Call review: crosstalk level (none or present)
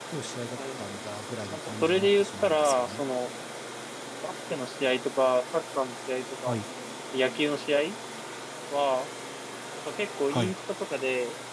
present